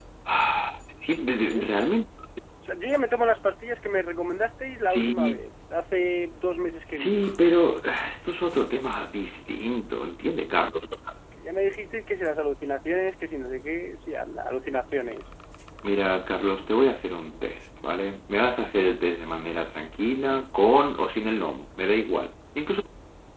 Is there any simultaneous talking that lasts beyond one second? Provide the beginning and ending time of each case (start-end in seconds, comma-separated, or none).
none